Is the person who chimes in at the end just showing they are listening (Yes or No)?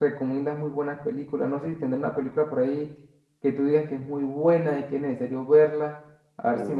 No